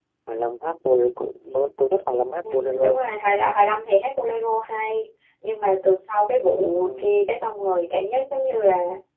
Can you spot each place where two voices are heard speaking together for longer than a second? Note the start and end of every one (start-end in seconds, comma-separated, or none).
none